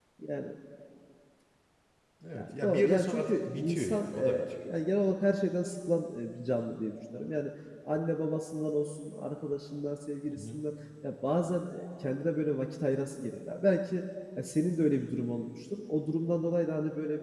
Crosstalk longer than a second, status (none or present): present